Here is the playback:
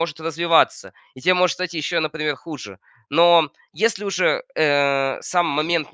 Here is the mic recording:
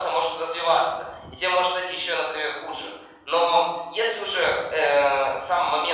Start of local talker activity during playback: none

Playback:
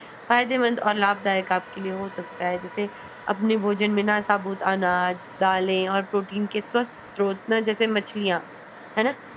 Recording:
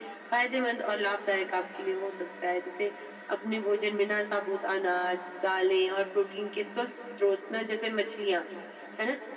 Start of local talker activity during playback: none

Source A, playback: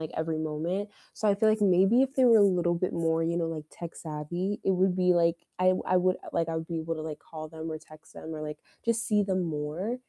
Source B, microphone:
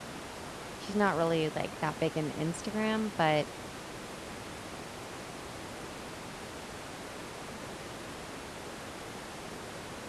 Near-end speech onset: 0.8 s

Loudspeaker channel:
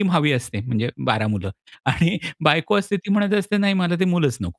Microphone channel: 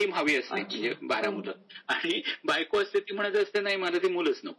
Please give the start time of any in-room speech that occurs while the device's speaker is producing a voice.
0.6 s

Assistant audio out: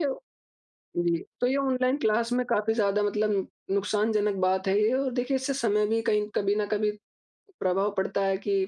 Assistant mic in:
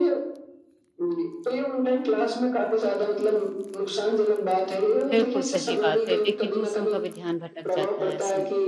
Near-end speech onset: 5.1 s

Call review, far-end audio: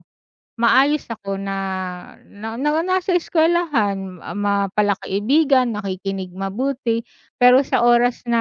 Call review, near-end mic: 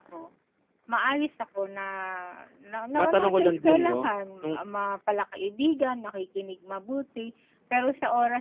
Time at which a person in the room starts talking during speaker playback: 3.0 s

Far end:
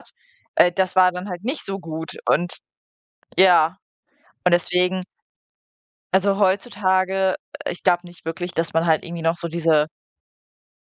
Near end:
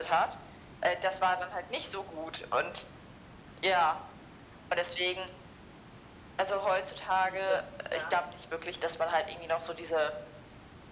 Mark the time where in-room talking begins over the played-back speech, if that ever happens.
7.2 s

